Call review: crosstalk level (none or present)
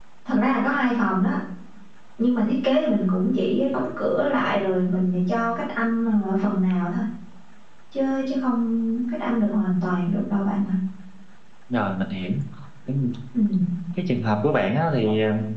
none